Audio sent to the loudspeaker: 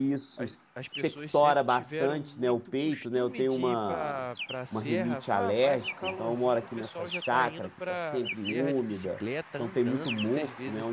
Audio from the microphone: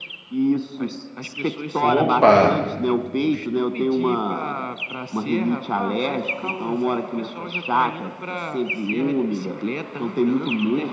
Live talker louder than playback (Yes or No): Yes